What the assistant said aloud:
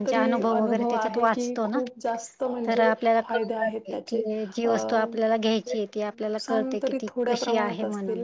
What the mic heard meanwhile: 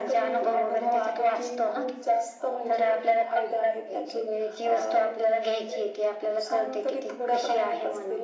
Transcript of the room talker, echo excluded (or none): none